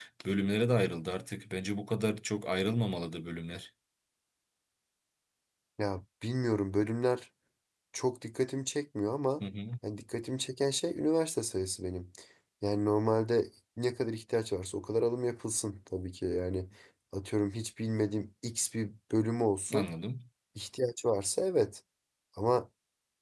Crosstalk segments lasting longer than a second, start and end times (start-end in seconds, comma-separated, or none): none